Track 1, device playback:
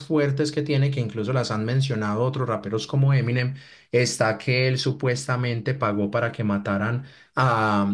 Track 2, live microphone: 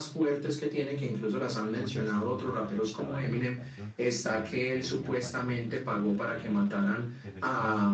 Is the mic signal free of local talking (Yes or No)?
No